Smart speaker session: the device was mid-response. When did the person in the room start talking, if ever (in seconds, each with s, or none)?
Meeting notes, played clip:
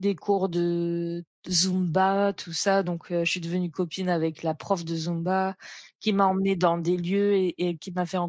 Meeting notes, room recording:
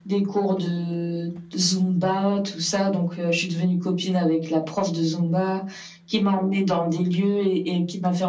none